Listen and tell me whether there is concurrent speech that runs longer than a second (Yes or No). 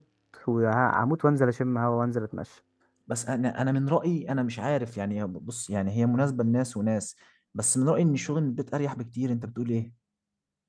No